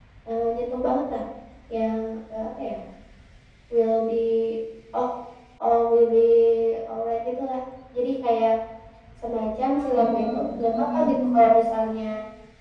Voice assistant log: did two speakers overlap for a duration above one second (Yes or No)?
Yes